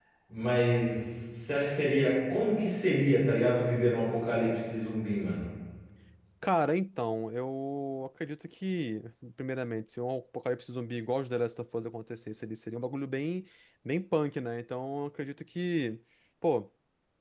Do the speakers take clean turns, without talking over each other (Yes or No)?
Yes